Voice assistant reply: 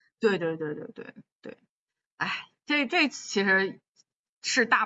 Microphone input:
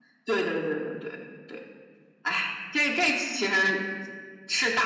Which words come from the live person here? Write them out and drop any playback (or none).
none